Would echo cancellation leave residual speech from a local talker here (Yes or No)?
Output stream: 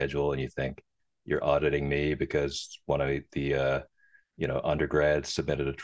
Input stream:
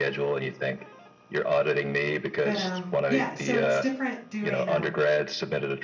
Yes